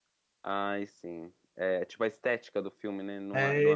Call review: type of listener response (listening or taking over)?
taking over